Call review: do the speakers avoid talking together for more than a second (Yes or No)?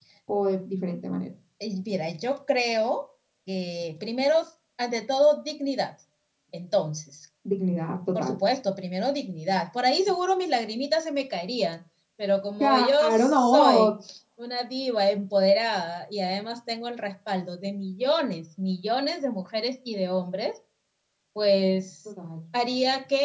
No